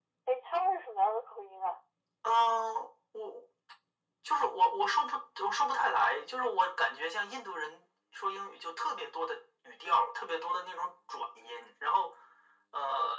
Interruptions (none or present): none